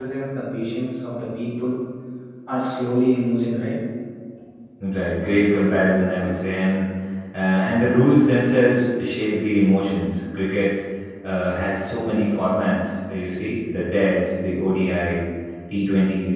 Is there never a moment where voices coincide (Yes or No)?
Yes